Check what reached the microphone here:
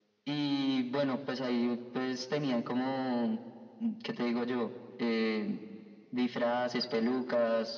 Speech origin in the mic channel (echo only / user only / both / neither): echo only